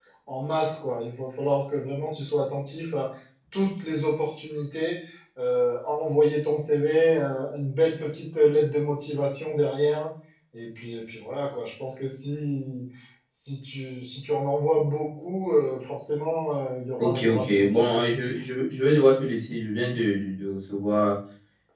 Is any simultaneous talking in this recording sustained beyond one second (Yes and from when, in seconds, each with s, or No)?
Yes, from 17.0 s